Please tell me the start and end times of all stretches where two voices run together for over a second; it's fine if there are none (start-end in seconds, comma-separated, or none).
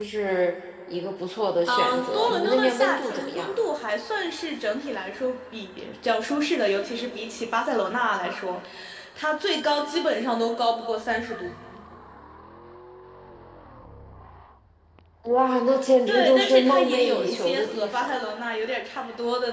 1.7-3.7, 16.1-18.2